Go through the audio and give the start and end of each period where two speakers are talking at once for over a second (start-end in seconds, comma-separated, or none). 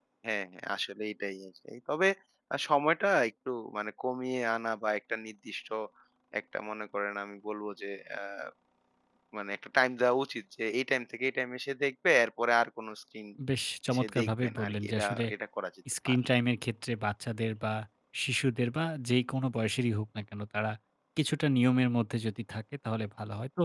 13.9-15.2